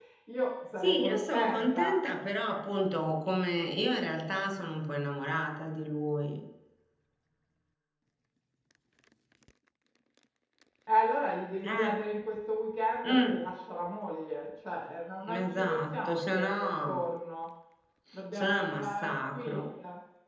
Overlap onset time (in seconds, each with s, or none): 0.7 s